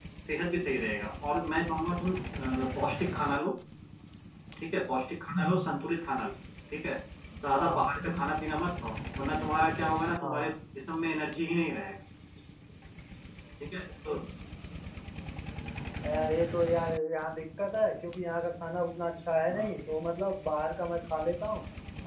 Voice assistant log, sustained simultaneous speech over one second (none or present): none